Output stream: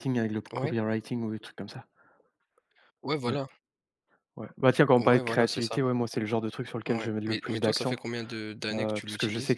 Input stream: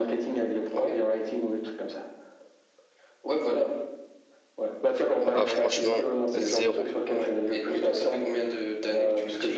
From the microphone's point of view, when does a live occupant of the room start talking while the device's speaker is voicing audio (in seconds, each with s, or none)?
5.3 s